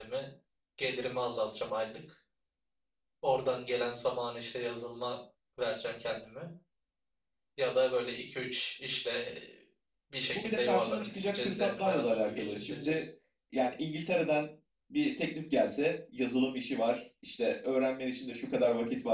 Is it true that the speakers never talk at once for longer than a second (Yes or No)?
No